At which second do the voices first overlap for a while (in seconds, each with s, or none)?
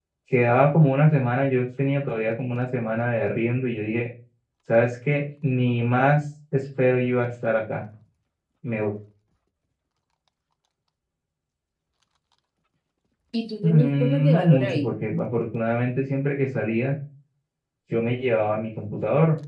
13.6 s